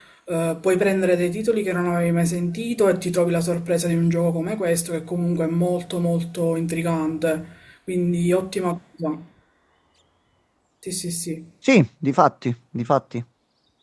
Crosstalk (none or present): none